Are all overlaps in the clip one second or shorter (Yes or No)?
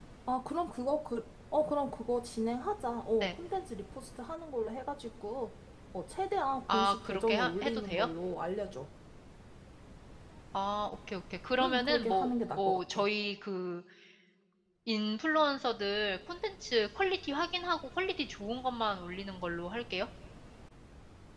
No